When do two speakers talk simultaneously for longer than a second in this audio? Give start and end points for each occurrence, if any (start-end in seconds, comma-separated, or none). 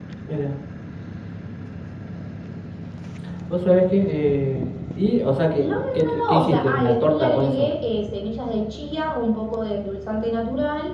5.6-7.7